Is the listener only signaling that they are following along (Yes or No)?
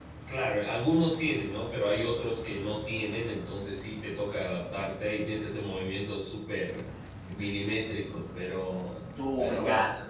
No